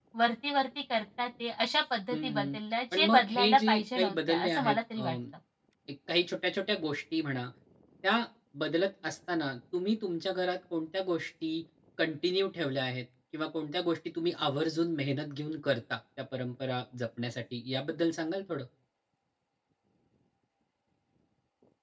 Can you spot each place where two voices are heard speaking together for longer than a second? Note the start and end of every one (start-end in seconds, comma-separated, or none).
2.9-5.0